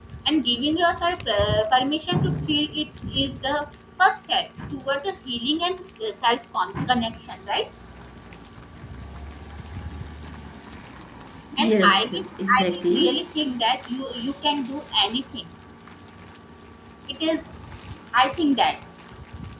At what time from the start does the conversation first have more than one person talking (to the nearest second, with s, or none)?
12 s